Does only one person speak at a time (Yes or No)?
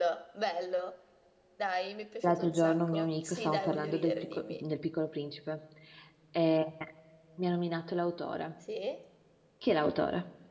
No